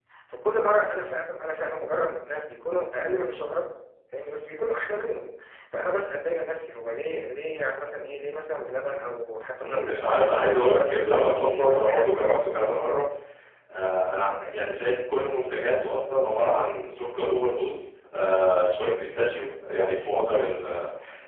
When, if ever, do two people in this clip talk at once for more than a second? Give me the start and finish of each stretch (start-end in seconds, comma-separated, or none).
9.6-12.1